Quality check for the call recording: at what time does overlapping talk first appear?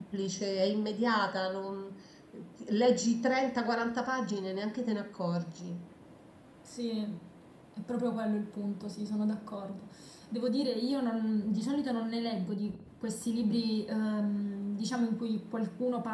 none

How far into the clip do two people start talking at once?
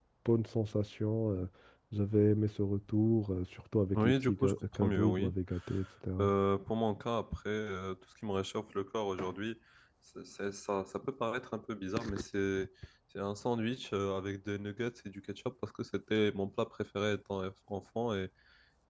4 s

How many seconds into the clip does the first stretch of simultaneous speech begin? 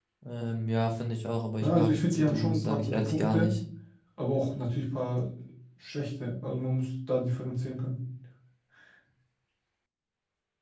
2 s

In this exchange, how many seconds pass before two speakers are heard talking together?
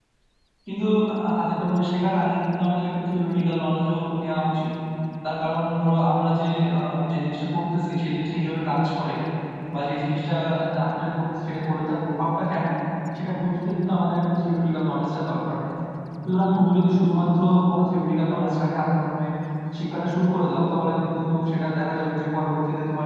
none

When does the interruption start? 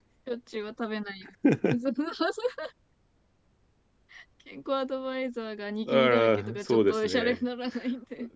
6 s

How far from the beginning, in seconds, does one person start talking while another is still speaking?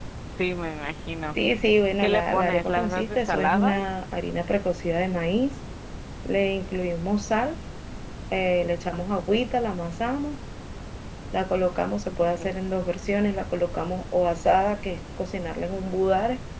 2 s

